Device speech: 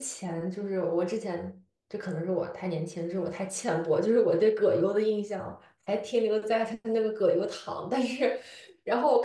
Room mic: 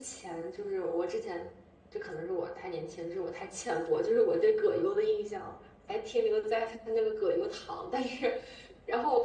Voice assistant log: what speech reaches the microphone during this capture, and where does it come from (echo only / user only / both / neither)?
echo only